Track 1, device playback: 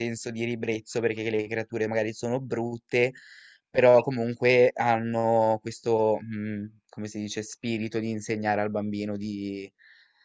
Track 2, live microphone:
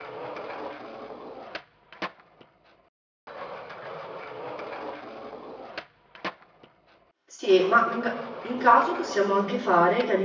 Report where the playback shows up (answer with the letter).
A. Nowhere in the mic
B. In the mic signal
A